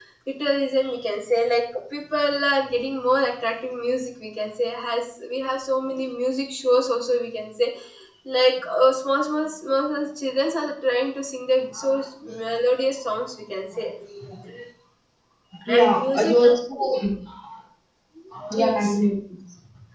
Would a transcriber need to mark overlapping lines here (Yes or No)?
Yes